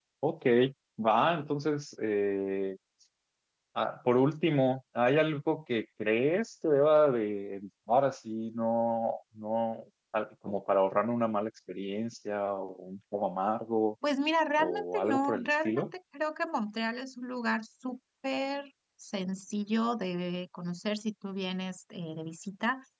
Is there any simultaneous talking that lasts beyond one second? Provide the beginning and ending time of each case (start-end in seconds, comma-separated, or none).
14.6-15.9